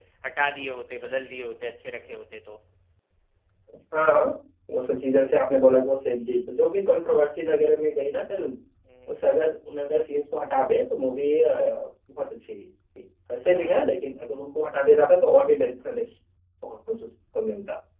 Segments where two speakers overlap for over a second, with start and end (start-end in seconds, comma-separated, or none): none